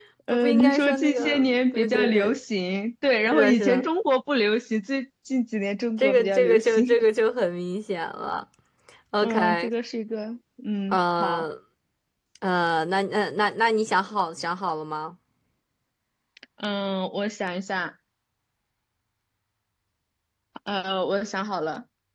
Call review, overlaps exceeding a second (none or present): present